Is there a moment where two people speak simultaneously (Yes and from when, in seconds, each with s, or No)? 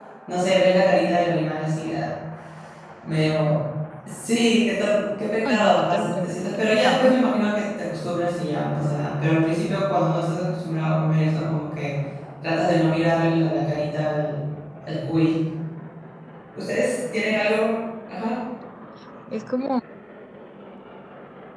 Yes, from 5.5 s